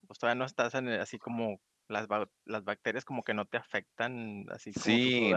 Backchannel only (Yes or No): No